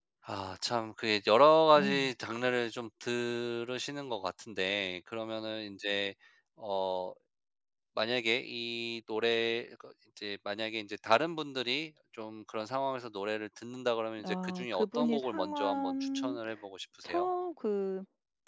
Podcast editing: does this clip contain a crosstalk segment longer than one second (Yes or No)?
Yes